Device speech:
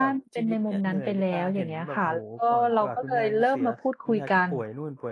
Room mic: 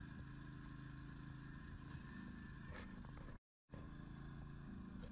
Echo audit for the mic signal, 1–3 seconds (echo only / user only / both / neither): neither